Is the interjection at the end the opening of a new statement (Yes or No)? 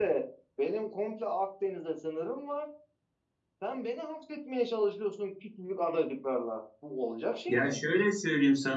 Yes